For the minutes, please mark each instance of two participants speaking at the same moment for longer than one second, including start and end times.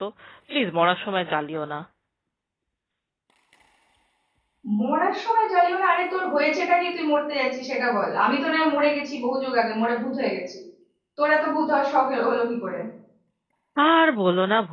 none

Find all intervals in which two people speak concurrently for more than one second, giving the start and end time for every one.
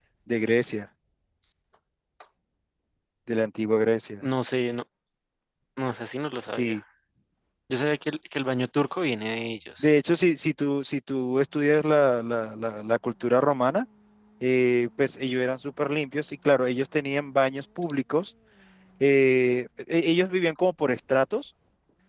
none

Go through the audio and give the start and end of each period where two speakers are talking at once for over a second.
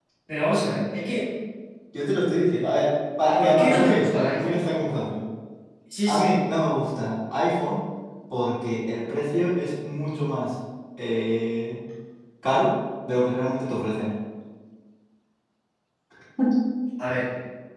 3.3-4.6

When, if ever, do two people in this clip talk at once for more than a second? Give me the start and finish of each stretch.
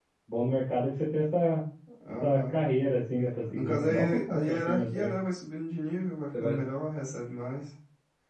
3.5-5.1

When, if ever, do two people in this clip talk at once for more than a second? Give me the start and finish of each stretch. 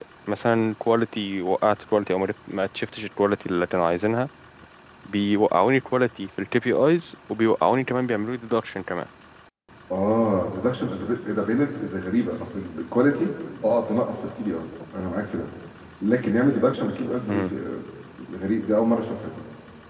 none

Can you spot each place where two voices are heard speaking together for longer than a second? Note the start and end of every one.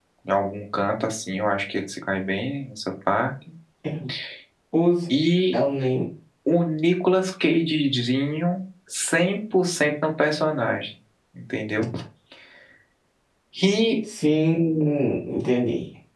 none

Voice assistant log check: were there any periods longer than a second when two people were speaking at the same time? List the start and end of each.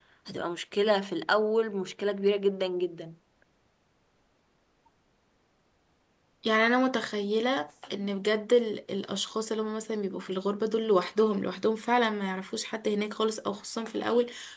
none

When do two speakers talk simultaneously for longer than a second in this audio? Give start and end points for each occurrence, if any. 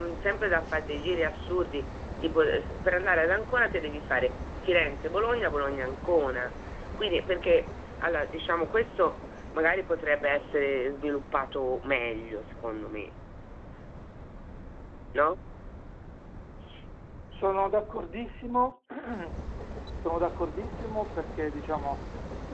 none

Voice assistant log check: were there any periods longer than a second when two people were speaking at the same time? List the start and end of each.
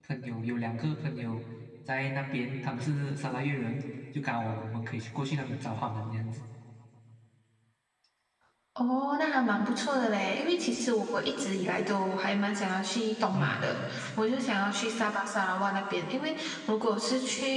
none

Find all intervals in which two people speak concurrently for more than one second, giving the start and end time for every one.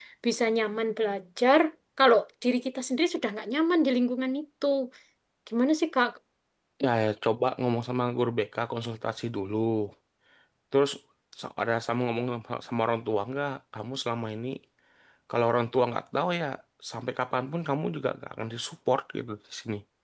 none

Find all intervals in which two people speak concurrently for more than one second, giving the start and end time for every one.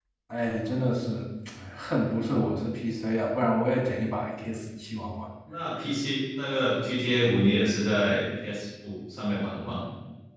none

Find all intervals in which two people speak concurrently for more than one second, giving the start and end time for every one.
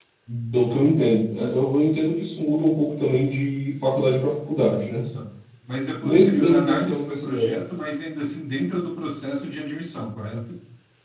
6.0-7.5

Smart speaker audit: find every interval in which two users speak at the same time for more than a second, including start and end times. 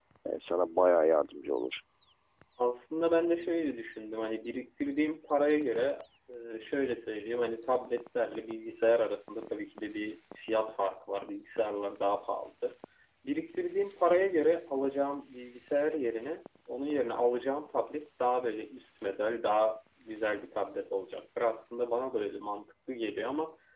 none

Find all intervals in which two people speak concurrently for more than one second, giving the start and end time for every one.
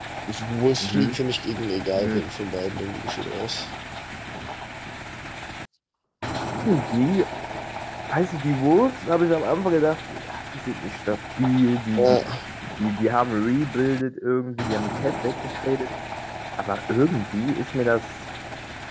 none

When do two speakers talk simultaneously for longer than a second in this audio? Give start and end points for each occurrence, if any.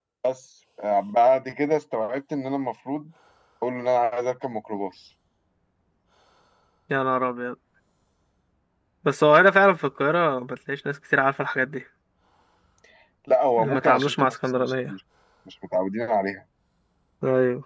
13.6-14.9

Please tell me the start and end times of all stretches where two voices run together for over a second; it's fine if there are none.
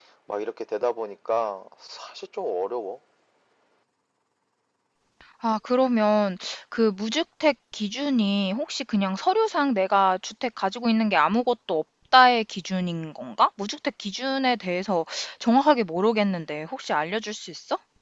none

